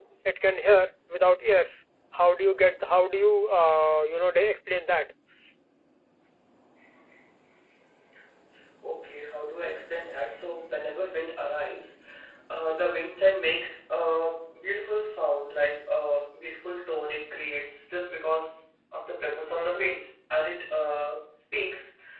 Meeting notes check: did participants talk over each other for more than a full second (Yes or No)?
No